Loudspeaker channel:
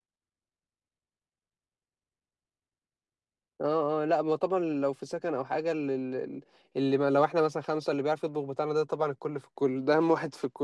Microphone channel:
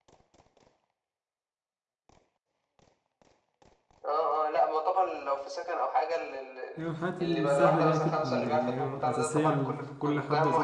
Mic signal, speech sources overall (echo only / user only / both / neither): both